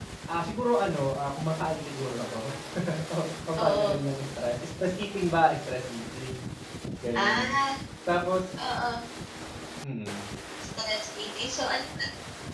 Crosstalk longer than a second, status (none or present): none